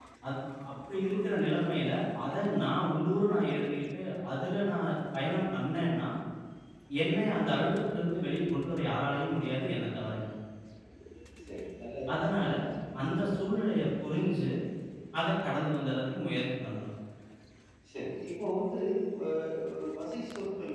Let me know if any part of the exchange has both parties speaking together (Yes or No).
No